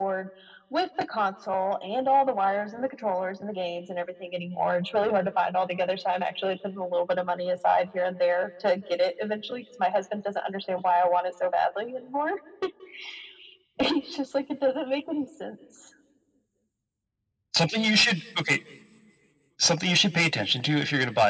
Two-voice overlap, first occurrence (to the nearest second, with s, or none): none